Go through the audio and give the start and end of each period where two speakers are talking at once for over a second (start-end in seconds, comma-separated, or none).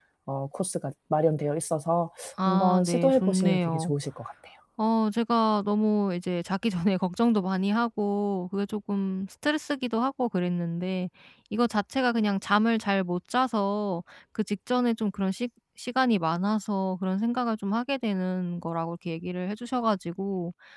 2.5-3.9